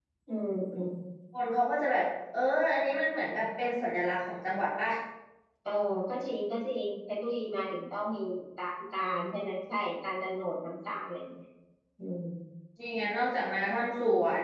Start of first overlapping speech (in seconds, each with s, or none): none